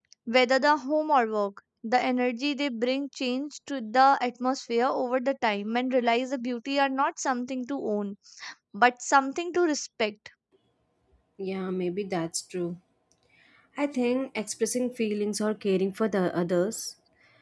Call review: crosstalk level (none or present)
none